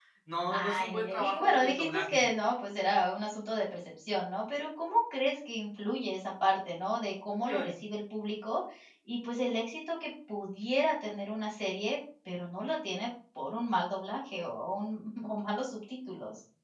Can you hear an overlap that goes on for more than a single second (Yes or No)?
Yes